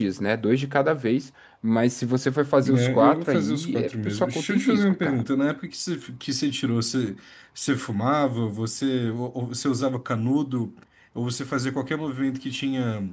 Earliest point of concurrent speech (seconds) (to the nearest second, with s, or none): 3 s